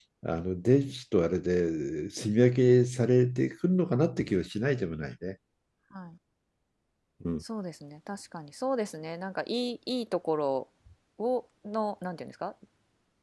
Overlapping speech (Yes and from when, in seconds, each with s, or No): No